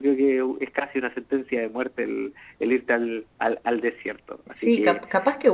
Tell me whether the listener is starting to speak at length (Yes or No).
Yes